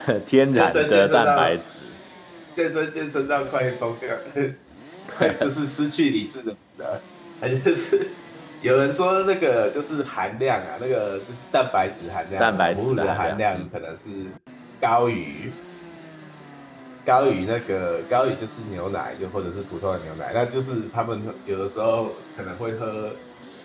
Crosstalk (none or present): present